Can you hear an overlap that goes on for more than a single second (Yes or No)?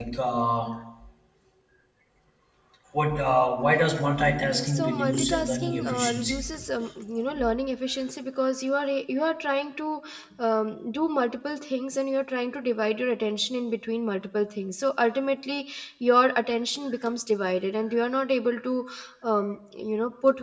Yes